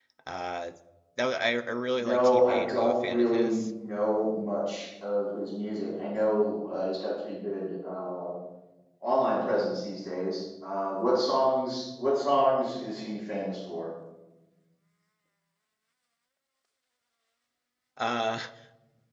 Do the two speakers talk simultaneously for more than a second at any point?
Yes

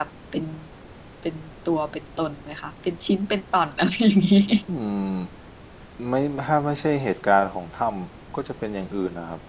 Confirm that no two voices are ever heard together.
Yes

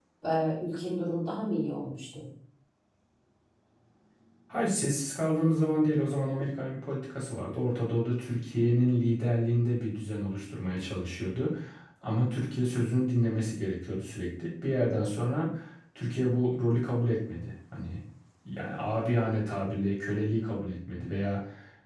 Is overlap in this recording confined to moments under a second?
Yes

